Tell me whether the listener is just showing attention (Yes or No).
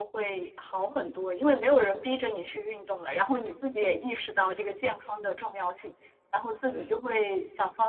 Yes